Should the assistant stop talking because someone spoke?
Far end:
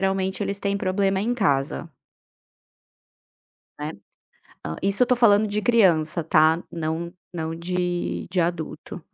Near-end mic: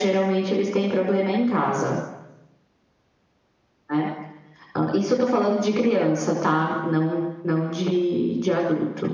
No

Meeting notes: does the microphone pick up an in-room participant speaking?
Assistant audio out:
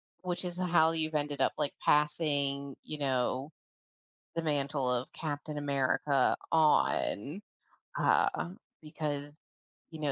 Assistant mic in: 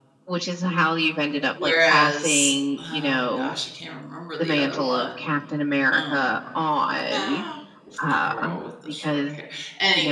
Yes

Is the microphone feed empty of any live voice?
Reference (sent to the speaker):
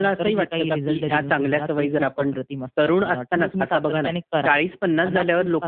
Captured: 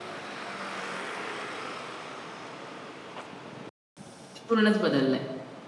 No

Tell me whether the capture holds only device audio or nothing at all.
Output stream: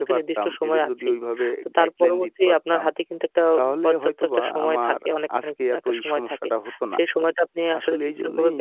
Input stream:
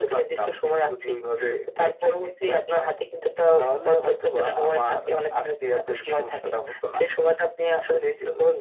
No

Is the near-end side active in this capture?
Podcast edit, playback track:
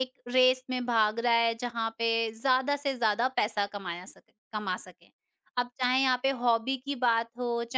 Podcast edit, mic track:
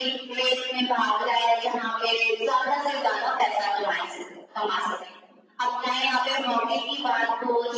No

